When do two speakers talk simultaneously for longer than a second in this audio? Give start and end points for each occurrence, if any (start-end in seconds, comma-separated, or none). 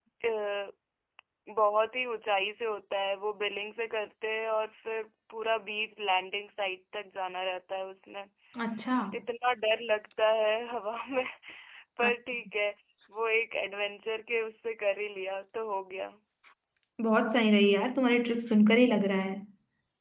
none